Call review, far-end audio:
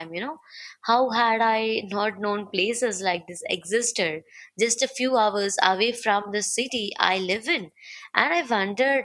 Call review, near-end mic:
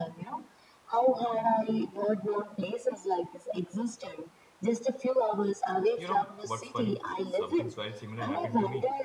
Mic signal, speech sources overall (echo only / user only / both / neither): both